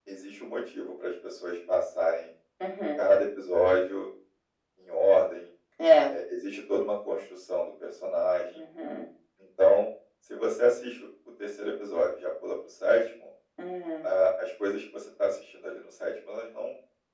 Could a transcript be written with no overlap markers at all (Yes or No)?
Yes